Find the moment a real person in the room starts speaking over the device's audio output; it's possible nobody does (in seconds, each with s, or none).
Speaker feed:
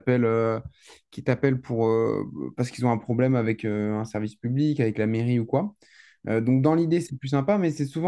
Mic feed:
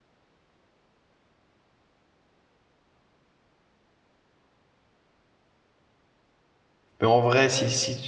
7.0 s